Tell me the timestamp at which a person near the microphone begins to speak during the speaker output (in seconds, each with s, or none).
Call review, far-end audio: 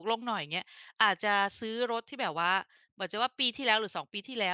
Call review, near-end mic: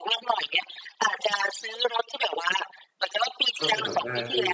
3.6 s